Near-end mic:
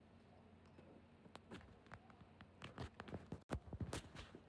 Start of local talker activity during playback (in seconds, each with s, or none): none